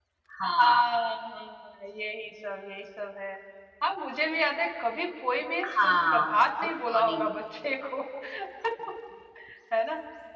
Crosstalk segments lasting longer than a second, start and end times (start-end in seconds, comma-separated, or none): 5.8-7.3